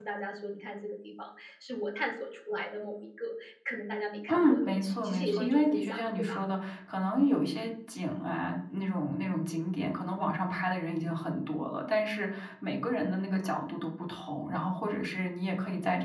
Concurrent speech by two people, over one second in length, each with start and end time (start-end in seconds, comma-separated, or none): 4.3-6.3